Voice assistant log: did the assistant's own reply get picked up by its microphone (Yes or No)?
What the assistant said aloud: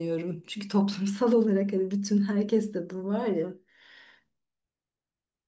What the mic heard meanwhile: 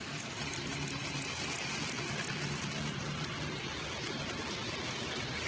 No